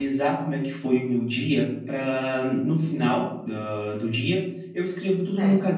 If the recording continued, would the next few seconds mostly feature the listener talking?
No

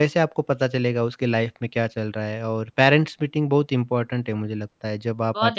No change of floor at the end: No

